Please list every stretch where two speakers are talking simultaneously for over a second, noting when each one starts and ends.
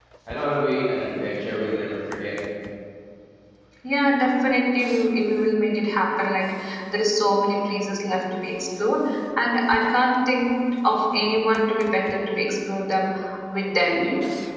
none

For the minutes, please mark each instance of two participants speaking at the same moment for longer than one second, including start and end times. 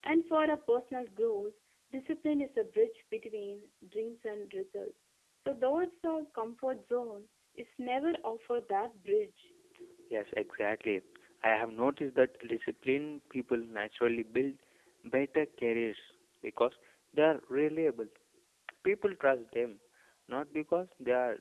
none

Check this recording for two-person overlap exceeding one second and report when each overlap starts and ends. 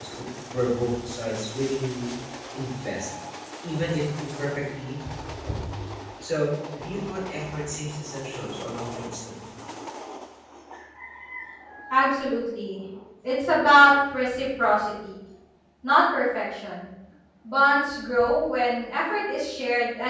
none

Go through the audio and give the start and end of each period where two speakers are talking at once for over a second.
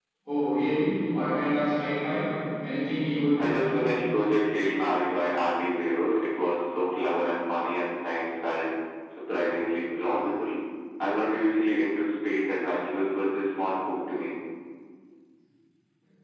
none

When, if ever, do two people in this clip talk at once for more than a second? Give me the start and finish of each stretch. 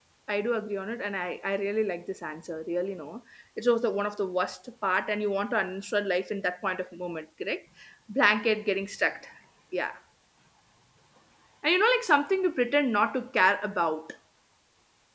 none

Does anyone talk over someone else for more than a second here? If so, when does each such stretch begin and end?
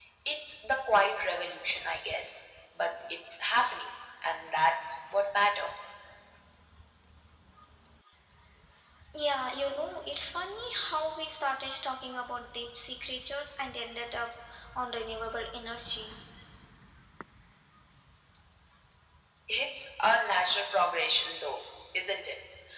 none

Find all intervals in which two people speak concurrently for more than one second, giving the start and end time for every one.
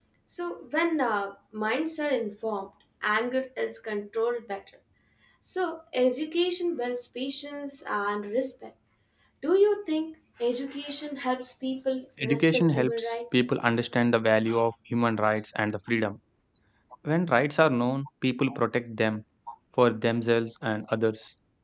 12.2-13.5

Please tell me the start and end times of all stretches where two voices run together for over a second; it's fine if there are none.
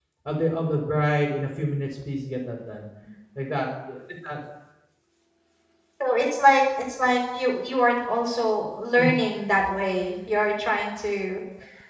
none

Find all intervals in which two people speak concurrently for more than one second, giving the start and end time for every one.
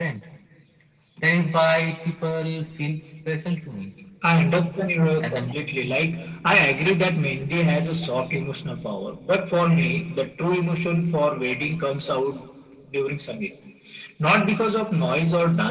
none

